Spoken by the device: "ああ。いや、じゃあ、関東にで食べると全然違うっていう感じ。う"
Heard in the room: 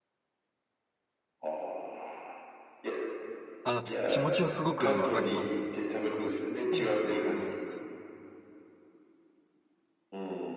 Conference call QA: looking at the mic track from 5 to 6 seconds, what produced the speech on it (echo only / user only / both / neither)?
both